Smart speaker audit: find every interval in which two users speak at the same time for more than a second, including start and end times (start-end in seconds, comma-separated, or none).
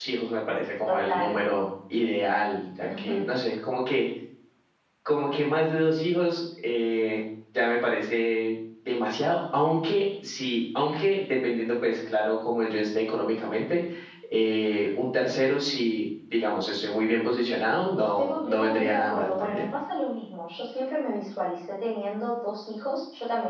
18.0-19.7